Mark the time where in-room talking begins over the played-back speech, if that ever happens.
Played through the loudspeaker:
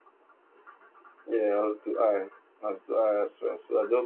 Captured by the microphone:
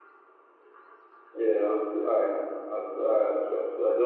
none

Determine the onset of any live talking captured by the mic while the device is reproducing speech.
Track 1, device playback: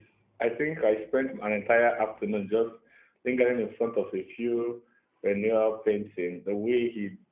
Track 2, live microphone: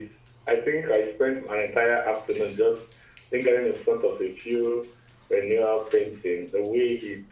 none

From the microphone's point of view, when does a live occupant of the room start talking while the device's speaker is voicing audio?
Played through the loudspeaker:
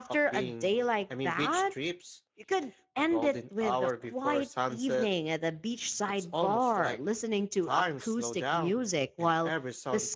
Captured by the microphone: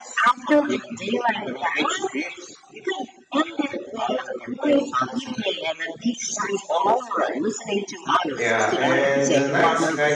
8.4 s

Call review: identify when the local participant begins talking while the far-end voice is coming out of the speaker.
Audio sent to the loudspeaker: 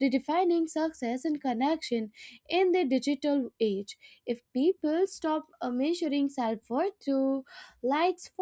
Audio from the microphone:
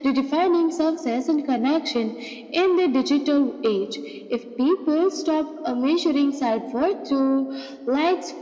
none

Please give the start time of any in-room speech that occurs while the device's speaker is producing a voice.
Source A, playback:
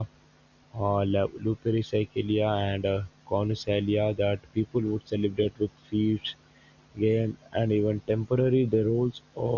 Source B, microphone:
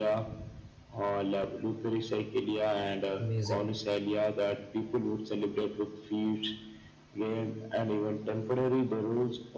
3.2 s

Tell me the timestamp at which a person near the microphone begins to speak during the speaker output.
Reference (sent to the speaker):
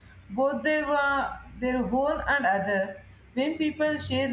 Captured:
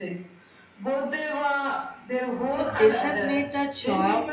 2.5 s

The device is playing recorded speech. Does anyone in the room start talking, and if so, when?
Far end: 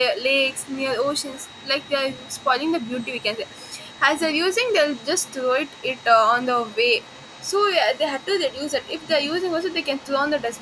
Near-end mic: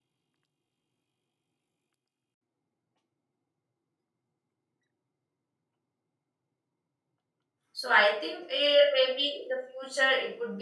7.7 s

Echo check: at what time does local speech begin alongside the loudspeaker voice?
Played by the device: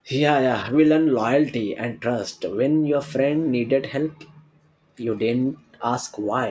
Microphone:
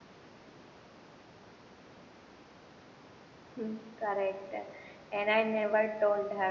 3.6 s

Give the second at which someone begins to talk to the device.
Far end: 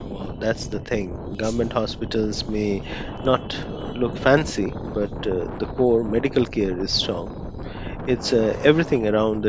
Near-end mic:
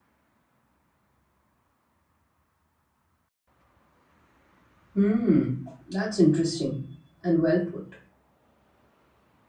4.9 s

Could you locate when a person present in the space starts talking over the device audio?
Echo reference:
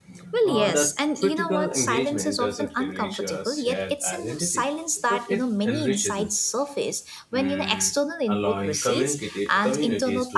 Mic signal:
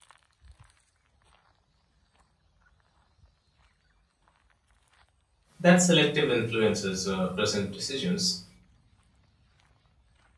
5.6 s

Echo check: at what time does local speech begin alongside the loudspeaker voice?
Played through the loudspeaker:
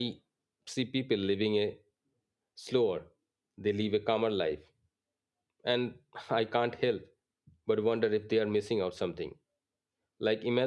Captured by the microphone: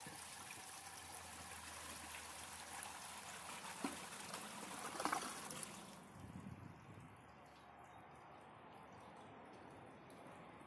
none

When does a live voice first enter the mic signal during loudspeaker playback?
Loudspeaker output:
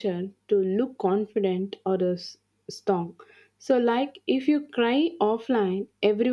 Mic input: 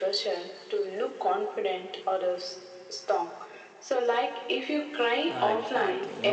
5.3 s

